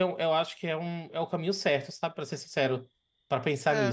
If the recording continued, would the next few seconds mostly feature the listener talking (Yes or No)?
Yes